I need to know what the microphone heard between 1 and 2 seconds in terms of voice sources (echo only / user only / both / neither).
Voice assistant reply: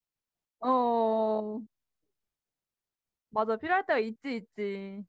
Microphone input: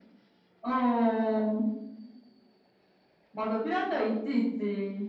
echo only